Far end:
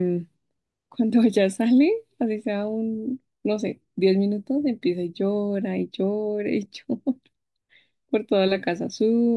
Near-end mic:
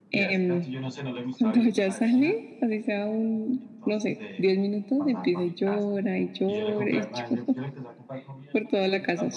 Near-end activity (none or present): present